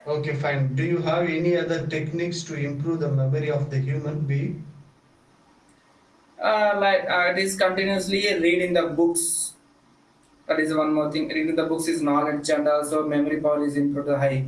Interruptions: none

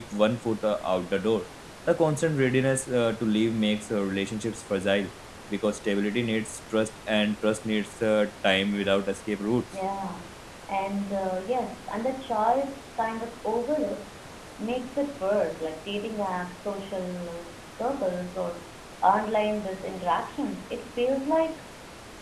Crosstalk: none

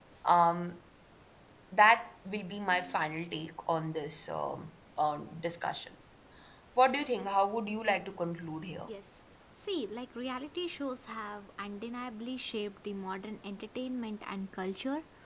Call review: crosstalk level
none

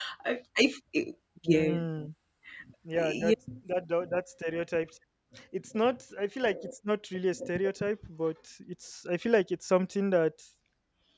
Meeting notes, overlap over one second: none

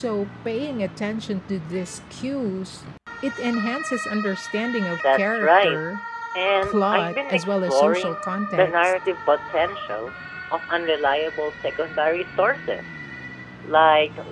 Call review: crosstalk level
present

